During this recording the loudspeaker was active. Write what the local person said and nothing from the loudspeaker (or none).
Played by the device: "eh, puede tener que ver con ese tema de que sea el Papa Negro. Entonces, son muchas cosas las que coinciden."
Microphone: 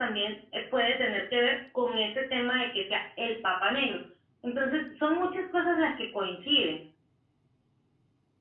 none